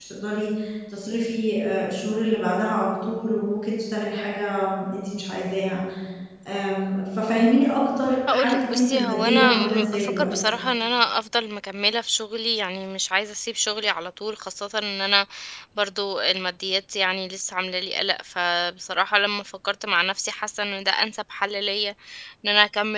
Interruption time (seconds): 8 s

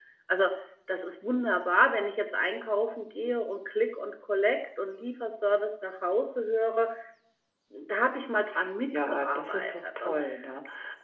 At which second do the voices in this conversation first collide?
9 s

